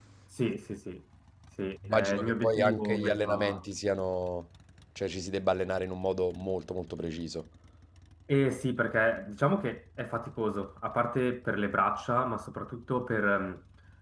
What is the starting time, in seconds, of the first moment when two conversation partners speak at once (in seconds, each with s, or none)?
1.9 s